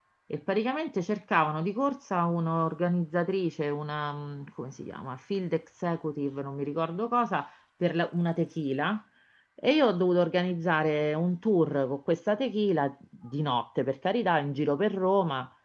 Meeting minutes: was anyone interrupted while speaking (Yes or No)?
No